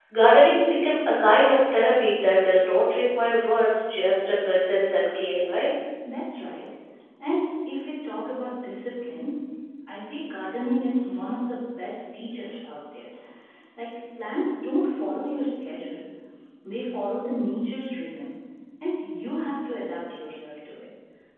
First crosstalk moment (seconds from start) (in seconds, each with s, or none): none